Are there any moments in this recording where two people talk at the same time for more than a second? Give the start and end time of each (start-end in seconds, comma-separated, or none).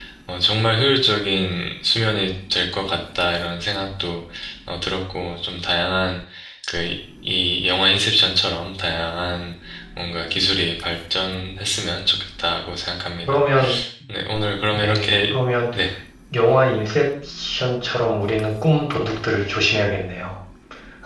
none